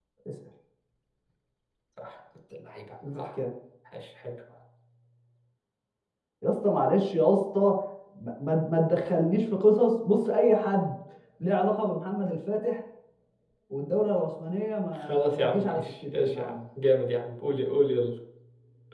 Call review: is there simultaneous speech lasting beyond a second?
Yes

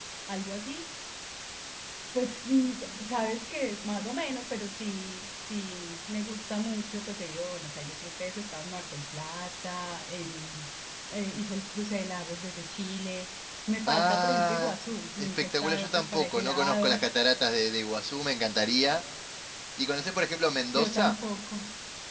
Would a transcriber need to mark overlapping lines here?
Yes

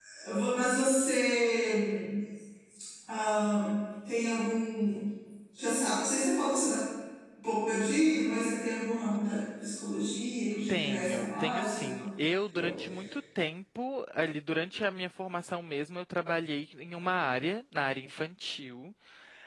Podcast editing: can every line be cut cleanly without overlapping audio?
No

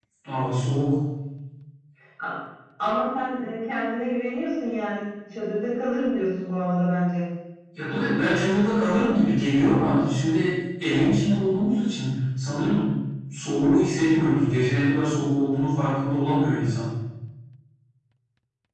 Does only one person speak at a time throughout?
Yes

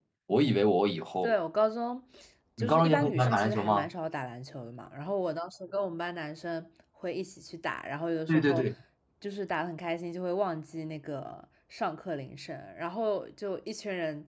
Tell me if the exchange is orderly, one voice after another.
No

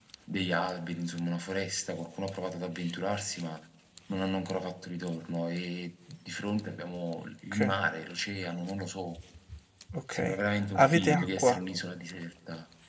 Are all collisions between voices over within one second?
No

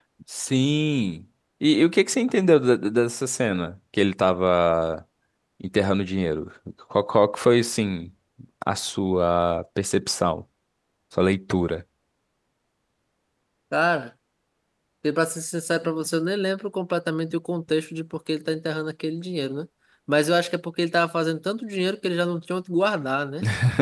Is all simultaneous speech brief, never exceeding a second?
Yes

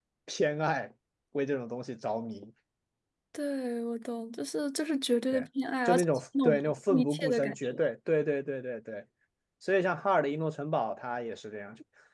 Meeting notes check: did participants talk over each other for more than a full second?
Yes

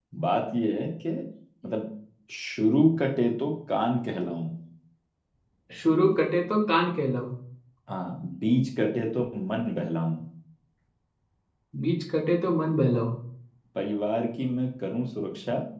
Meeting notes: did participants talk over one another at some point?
No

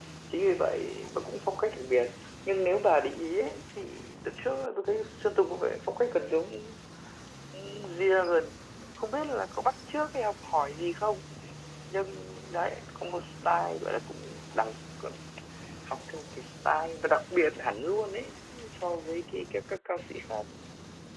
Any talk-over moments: No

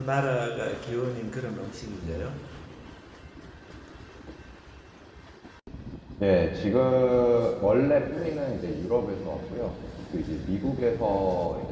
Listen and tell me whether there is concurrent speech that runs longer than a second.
No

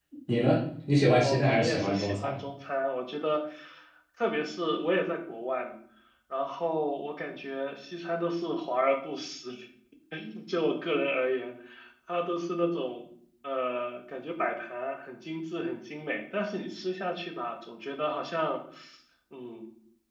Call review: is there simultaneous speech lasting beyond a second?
Yes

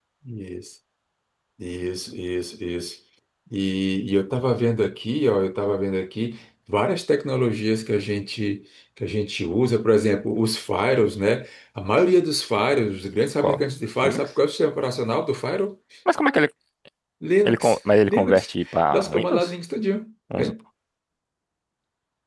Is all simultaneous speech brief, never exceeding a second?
No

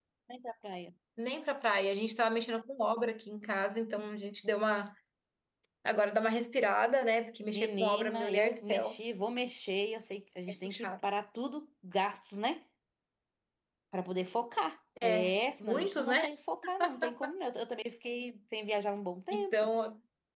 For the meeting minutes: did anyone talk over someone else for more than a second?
Yes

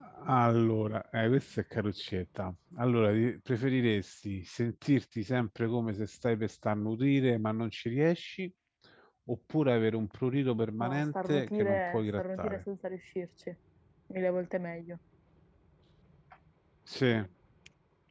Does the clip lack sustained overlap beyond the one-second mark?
No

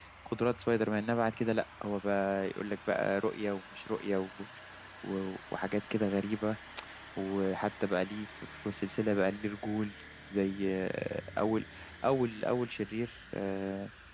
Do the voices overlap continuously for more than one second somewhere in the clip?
No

